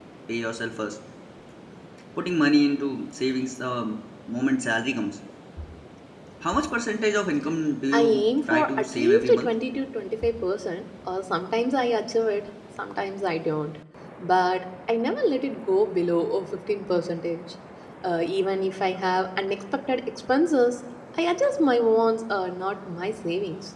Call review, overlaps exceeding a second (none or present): present